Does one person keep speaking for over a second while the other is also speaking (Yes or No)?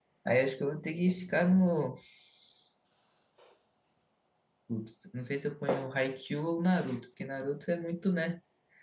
No